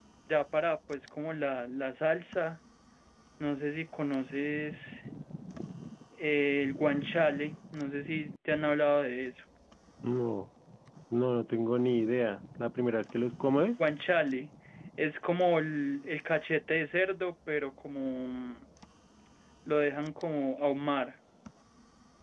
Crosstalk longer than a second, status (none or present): none